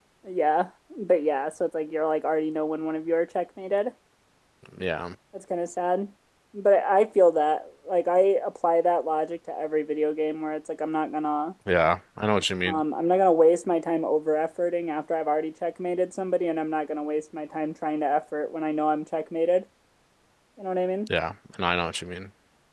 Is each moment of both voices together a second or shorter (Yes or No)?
Yes